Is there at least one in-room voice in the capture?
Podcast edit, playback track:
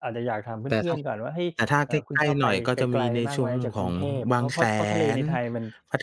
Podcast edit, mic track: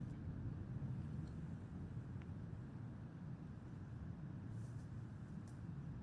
No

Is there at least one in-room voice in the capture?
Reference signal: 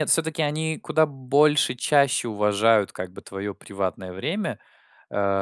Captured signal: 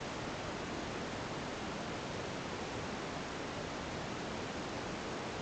No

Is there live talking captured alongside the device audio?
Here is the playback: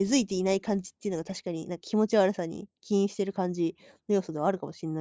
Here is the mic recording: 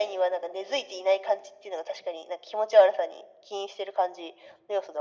No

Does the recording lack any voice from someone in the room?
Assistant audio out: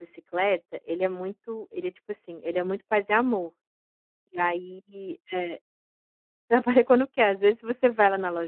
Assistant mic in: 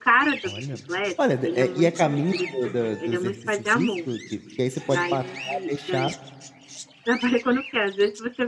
No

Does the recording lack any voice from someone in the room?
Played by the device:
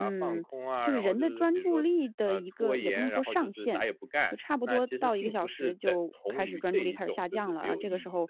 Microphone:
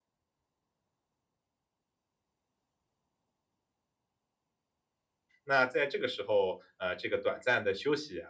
No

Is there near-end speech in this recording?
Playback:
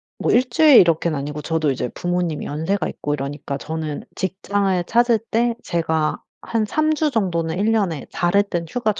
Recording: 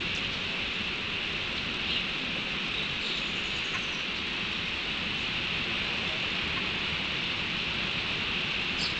No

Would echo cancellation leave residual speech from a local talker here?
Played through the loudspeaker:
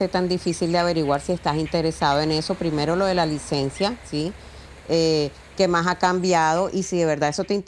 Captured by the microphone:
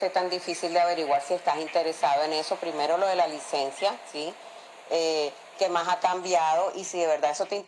No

